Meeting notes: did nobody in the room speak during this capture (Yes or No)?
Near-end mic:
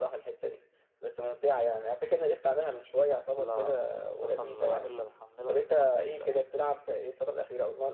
Yes